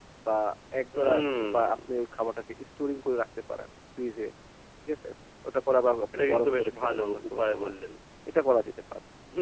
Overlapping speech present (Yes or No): Yes